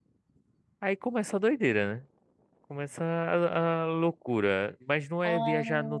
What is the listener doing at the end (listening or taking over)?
listening